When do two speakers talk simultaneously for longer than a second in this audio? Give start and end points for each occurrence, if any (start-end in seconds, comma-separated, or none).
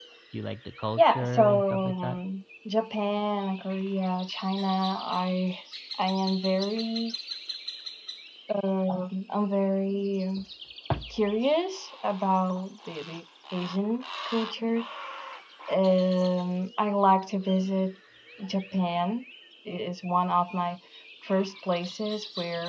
1.0-2.2